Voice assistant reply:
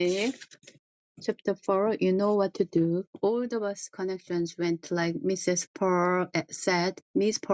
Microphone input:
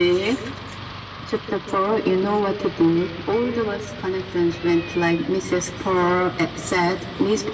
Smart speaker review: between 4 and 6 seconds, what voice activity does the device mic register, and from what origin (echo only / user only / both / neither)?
echo only